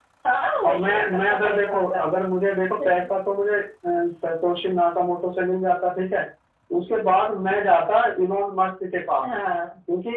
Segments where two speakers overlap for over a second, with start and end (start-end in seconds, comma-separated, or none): 0.6-2.0